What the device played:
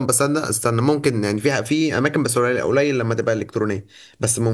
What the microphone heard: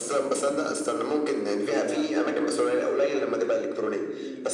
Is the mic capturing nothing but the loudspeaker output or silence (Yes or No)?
No